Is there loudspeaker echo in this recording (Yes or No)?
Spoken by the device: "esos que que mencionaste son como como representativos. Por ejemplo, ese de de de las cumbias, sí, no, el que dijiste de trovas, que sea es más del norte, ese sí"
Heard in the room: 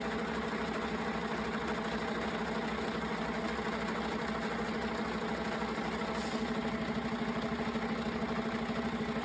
No